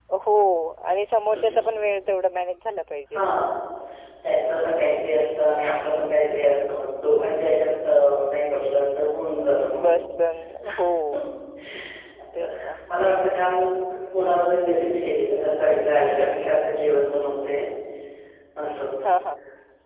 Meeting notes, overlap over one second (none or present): none